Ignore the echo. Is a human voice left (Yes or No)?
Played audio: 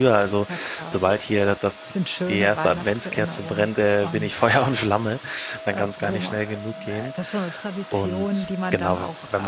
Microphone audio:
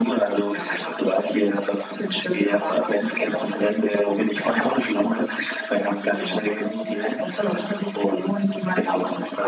No